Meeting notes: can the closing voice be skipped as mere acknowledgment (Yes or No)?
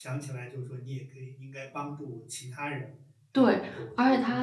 No